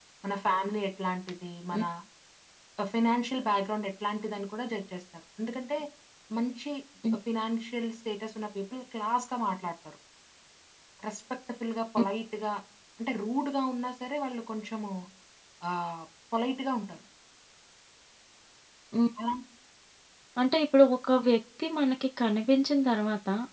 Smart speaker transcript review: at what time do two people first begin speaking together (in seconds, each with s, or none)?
none